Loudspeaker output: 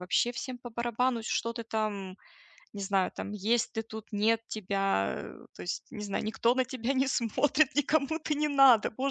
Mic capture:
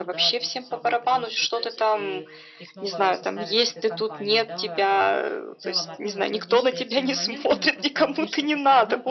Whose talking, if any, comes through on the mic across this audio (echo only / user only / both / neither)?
both